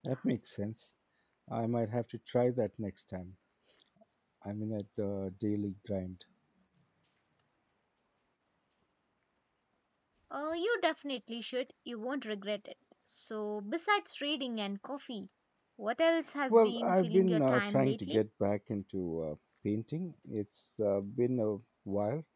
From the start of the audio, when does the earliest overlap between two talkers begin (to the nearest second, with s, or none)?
16 s